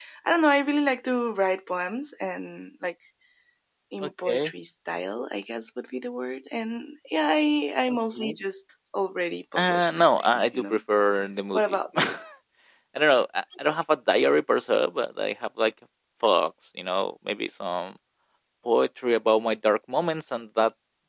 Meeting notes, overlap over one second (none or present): present